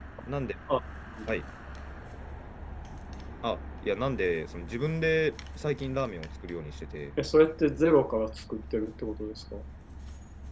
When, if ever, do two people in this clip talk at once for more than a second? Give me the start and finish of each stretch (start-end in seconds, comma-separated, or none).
none